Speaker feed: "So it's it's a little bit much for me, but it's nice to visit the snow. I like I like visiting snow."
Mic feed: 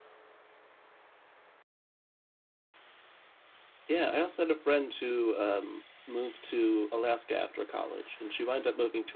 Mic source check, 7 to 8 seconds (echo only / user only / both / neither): user only